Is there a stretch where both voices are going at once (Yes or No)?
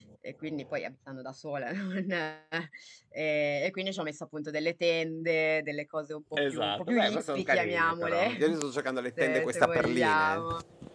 Yes